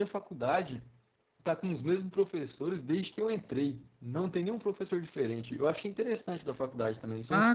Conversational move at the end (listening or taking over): taking over